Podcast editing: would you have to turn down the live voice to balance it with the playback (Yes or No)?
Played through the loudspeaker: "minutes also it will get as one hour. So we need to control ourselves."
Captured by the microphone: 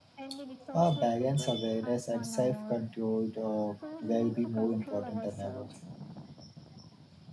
Yes